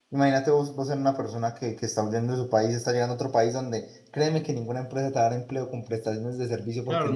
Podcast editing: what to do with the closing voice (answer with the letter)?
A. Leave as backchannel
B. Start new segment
B